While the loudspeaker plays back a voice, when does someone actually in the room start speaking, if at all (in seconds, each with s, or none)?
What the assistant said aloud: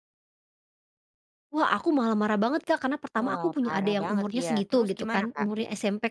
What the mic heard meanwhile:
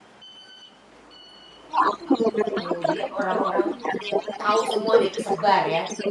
2.6 s